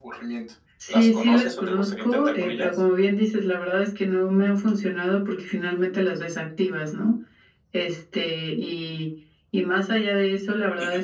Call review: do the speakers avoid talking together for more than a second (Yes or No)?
No